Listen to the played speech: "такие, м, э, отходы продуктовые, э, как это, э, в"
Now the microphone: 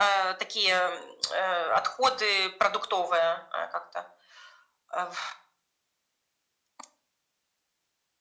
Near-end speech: none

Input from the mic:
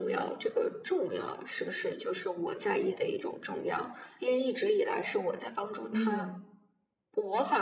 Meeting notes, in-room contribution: present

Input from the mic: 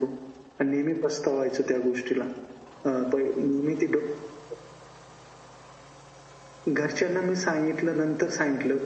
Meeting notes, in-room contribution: none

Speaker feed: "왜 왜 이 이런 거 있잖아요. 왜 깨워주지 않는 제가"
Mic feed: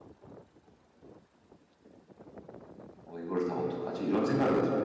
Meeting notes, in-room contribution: present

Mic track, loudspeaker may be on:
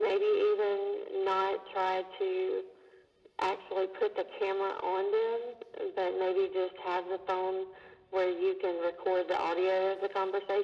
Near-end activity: none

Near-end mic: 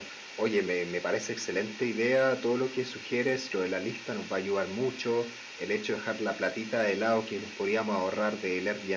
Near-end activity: none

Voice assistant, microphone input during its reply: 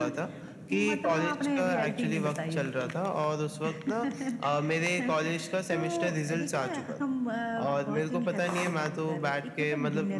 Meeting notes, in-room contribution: none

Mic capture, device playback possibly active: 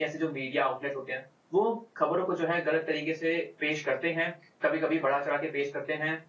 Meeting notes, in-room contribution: present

